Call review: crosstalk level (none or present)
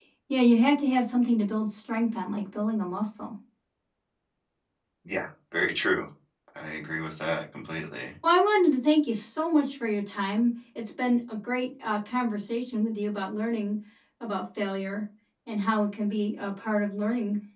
none